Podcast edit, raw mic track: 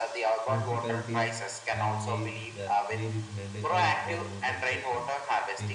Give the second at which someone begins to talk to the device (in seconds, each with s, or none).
0.5 s